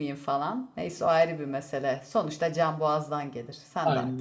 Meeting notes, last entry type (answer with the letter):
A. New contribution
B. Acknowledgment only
A